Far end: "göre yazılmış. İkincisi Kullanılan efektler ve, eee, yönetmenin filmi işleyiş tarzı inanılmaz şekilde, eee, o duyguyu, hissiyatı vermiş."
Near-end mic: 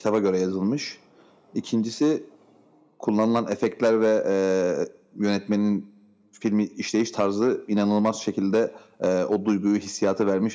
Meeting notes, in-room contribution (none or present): none